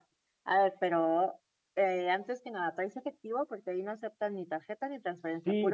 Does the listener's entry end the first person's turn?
Yes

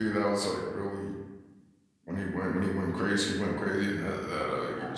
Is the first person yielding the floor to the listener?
Yes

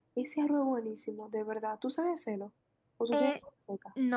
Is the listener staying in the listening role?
No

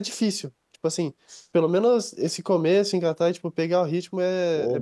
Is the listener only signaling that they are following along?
No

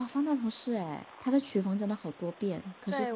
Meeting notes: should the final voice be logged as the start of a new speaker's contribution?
Yes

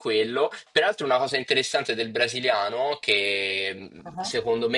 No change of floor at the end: Yes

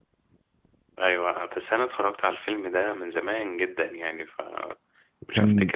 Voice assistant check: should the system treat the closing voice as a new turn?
Yes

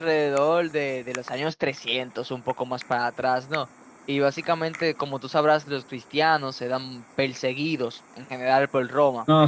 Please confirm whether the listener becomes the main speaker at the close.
Yes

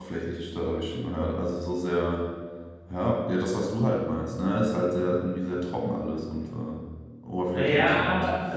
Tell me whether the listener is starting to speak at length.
Yes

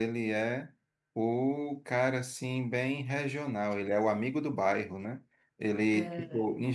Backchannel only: Yes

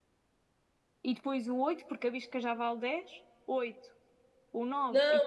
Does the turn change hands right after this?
Yes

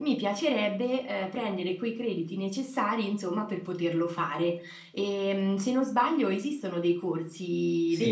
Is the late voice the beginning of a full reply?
Yes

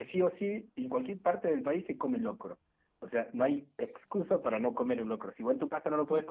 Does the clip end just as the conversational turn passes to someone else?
No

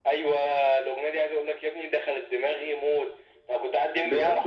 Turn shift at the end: No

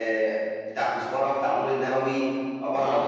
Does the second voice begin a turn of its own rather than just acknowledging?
No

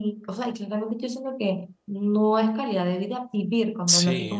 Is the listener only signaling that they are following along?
No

